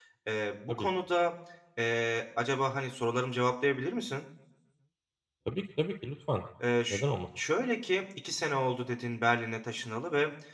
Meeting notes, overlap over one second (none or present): none